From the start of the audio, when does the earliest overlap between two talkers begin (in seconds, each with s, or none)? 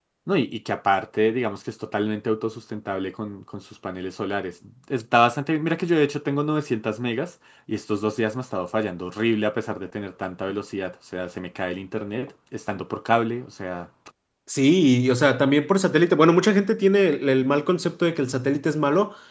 none